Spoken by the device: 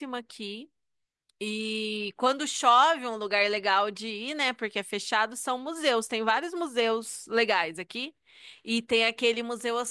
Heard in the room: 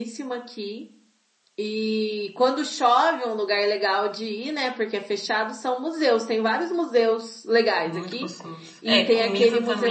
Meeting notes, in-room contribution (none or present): present